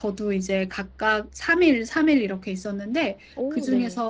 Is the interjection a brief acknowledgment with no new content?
Yes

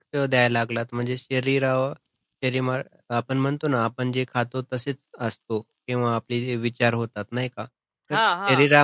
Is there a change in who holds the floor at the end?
No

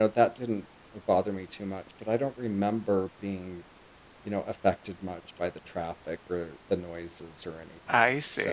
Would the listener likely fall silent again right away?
No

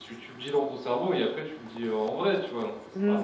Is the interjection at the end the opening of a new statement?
Yes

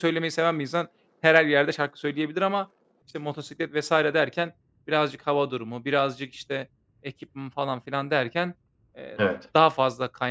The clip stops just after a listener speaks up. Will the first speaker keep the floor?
Yes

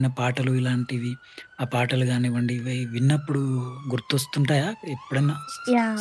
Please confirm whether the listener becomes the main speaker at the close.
Yes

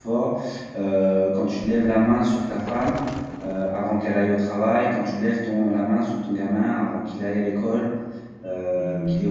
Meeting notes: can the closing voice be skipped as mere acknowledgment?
No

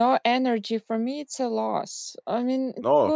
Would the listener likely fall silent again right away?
Yes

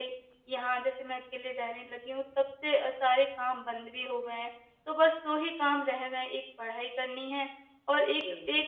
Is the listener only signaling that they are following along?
Yes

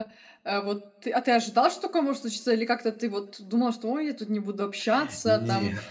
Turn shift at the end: No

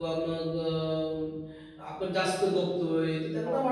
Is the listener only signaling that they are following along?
Yes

